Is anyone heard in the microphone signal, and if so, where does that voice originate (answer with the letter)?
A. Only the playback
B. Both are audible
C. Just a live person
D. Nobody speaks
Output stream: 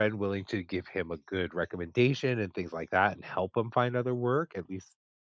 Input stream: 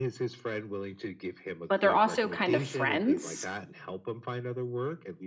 B